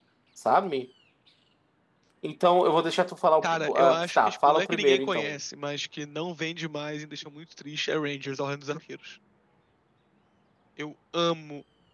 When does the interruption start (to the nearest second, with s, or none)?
3 s